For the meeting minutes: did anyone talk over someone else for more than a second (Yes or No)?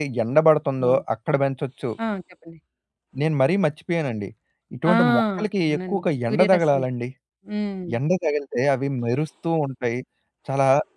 Yes